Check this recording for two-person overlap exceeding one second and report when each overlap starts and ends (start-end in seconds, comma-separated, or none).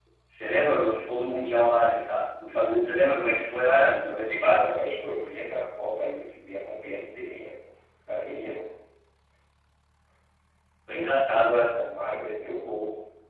none